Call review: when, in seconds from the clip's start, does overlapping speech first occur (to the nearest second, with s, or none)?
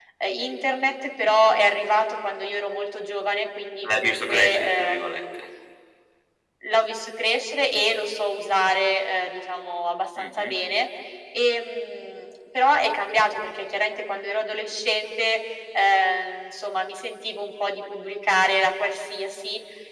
4 s